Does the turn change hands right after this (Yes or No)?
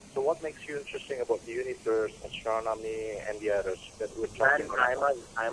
Yes